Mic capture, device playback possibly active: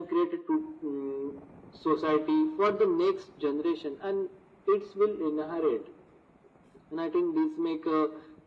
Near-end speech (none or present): none